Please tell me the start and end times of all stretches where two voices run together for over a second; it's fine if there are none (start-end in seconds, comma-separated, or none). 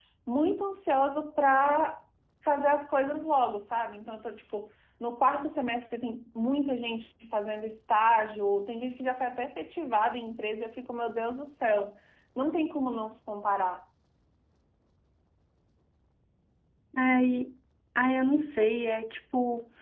none